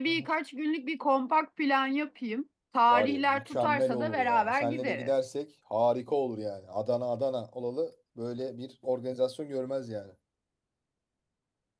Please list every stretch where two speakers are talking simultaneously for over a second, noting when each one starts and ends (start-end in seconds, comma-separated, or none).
2.9-5.1